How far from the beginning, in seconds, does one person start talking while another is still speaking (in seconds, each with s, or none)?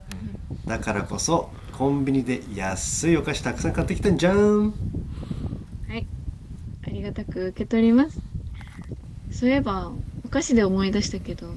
none